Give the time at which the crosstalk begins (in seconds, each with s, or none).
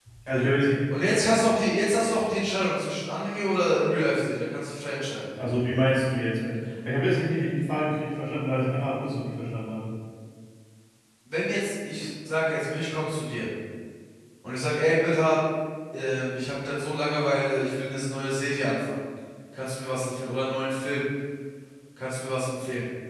none